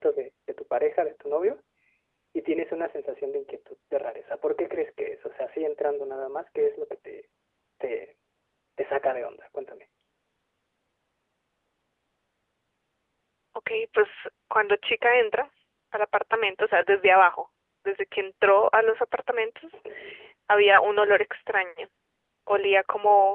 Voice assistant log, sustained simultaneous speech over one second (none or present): none